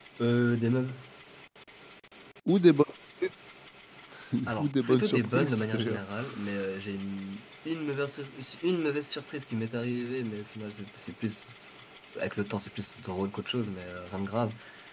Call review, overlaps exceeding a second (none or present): present